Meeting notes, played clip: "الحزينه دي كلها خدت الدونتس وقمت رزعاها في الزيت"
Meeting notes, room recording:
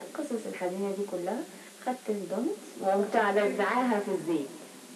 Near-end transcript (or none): اوكي